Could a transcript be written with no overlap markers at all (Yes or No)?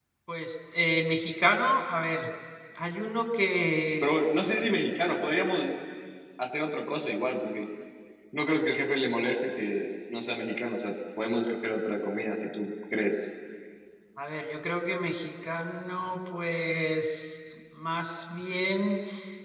Yes